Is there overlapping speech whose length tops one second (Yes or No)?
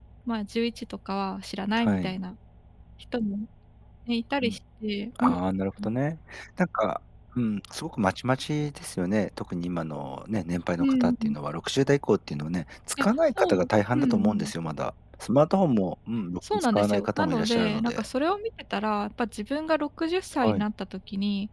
Yes